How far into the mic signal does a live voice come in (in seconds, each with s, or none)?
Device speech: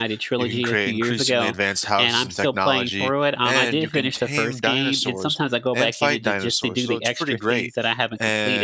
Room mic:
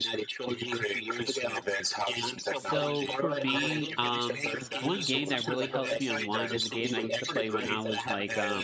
2.5 s